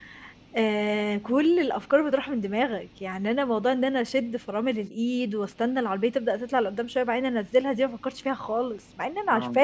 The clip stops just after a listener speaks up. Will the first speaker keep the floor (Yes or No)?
No